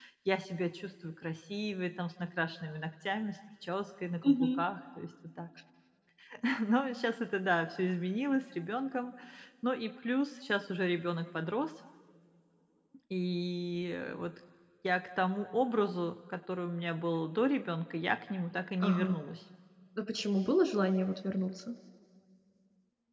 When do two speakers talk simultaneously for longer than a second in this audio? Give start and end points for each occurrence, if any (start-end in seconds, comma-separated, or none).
none